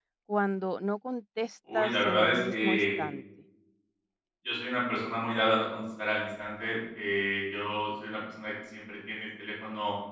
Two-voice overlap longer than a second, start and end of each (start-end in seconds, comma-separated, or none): 1.7-3.0